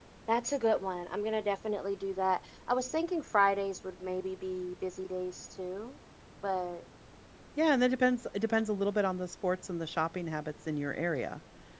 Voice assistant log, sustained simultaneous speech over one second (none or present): none